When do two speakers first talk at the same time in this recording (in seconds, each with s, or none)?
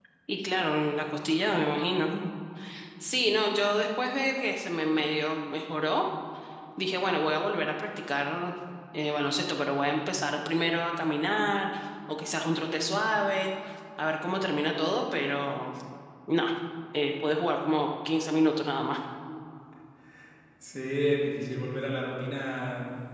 none